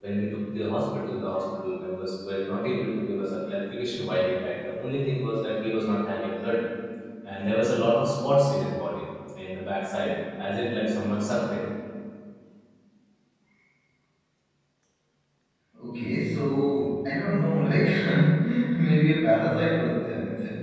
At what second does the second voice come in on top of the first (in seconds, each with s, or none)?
none